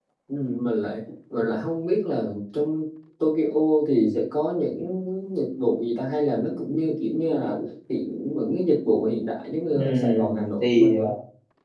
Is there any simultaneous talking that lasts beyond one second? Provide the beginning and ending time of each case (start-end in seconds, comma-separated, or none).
9.7-11.1